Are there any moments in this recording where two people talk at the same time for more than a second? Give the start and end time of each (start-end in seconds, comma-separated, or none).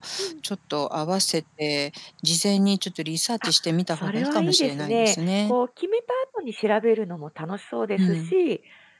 3.9-5.5